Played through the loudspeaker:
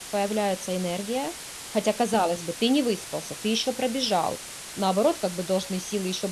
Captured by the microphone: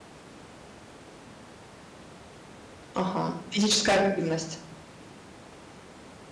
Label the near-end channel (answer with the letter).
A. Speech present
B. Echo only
A